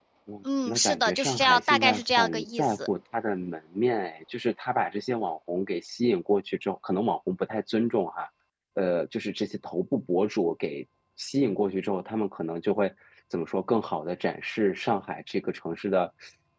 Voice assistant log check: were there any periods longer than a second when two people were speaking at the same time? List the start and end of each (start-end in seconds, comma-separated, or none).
0.7-2.7